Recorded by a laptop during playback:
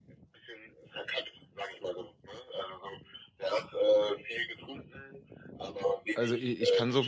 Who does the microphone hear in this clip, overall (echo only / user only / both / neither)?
both